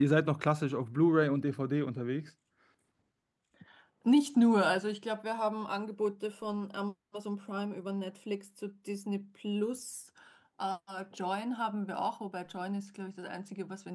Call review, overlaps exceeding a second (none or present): none